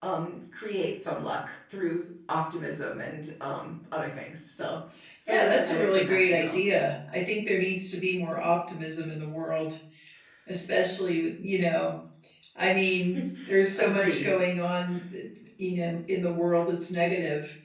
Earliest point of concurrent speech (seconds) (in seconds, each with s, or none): 5.3 s